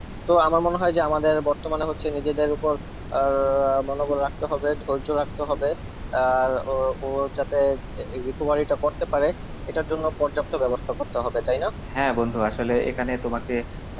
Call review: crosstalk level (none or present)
none